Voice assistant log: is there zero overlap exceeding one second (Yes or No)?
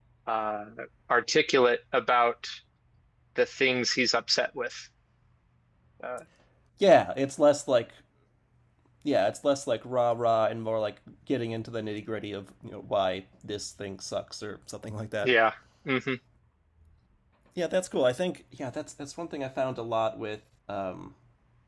Yes